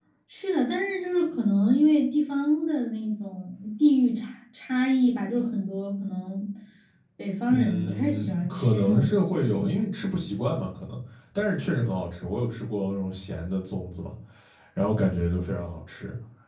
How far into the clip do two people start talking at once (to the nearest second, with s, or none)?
7 s